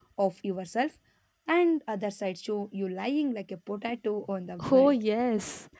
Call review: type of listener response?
taking over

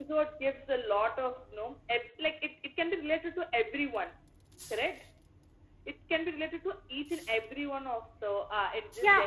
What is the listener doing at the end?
taking over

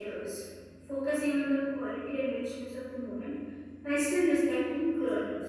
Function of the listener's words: taking over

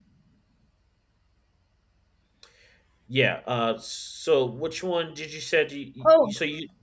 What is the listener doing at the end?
taking over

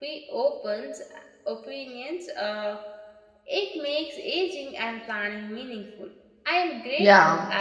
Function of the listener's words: taking over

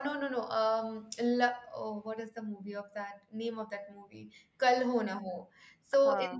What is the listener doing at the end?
listening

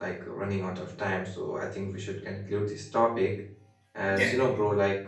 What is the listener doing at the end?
listening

